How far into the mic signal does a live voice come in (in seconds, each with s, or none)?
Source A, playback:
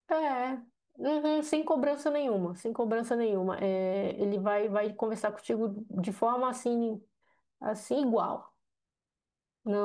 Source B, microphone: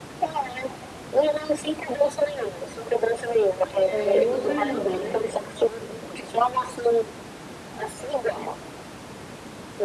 3.9 s